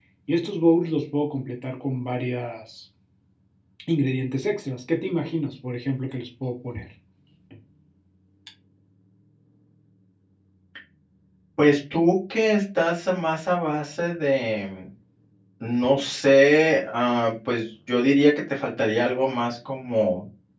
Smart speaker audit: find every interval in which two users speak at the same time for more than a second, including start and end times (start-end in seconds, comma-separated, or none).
none